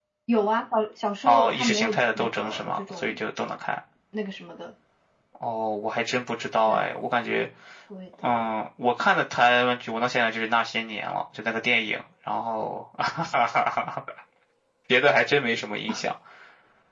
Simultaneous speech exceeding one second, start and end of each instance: 1.2-3.2

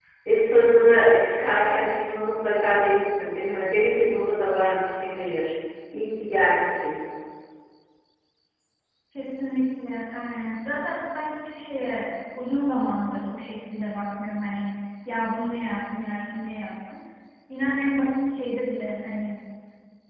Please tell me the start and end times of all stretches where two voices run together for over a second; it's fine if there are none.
none

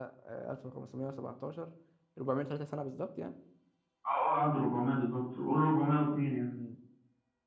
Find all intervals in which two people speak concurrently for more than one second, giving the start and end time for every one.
none

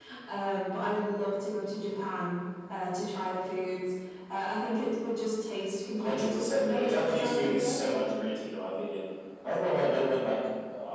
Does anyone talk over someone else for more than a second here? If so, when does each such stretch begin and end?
6.0-7.8

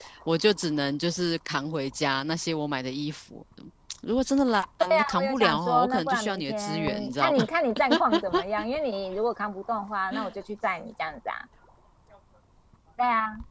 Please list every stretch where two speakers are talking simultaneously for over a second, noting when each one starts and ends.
5.2-7.5

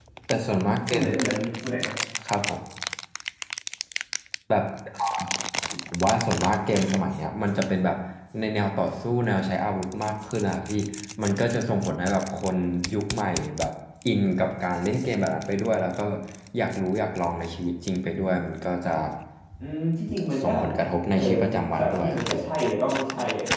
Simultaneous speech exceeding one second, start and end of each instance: 21.1-22.4

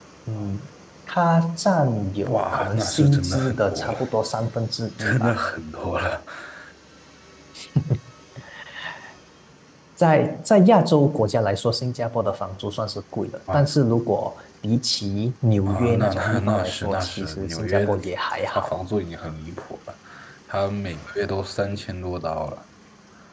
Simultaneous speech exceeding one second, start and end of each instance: 2.3-4.0, 15.7-17.9

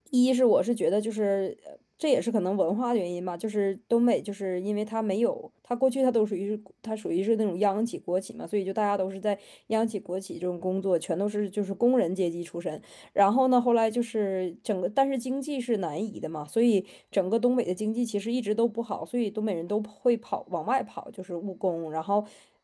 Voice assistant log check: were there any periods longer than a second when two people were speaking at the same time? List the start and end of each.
none

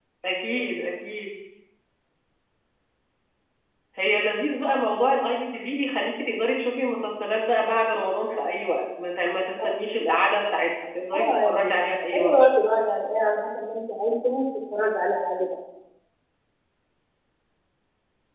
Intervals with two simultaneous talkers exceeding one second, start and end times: 11.1-12.4

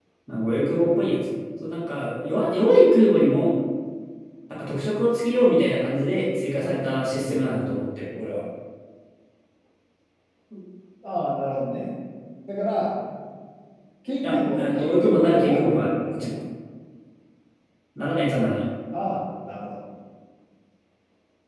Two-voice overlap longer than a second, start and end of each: 14.2-16.3

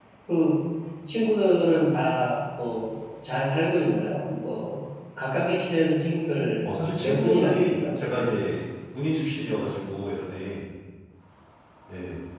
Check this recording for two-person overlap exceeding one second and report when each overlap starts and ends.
6.6-8.0

